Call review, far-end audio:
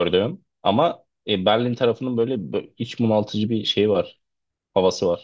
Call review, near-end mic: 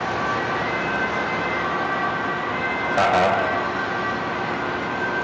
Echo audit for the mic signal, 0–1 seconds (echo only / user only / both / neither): neither